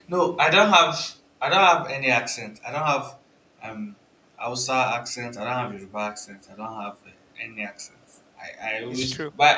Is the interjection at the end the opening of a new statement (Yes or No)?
No